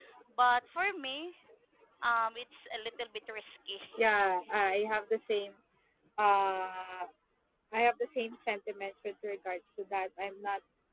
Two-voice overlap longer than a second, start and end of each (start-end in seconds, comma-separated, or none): none